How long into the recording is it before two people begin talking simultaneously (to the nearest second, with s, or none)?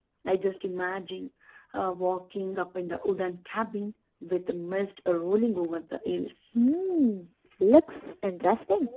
none